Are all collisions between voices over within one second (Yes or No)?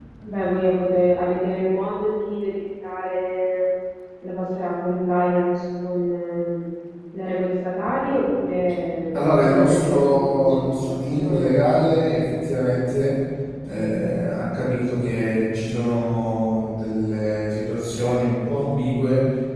No